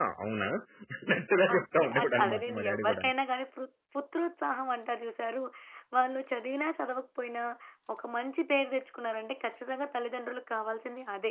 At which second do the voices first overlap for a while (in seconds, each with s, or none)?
1.5 s